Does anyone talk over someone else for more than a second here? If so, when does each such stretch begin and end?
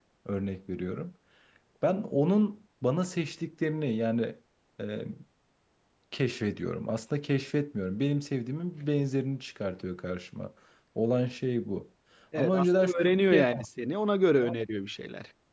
12.3-13.7

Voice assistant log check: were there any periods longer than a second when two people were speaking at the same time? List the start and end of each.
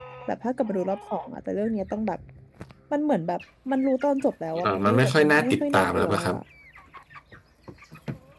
4.6-6.3

